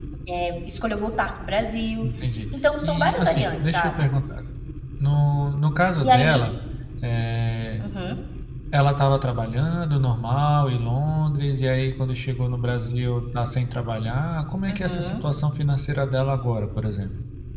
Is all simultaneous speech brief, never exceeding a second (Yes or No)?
No